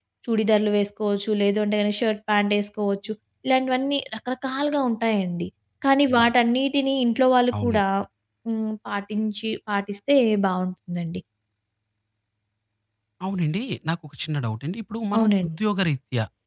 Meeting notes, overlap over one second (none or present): none